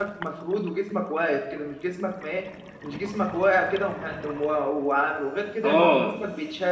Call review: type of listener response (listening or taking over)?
listening